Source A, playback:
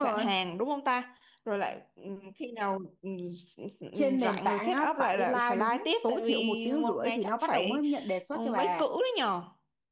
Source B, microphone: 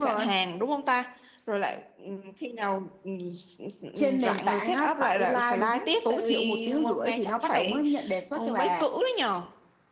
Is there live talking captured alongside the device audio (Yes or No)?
No